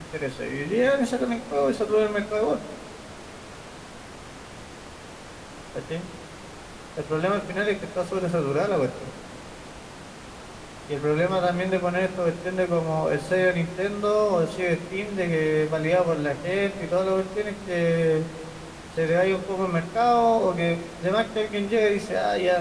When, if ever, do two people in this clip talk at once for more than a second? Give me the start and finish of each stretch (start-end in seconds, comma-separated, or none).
none